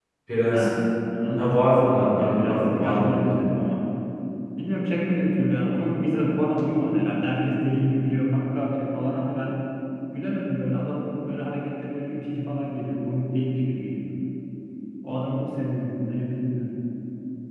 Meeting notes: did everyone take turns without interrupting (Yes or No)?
No